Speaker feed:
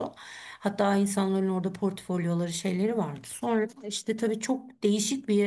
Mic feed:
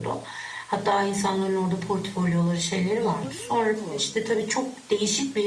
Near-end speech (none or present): present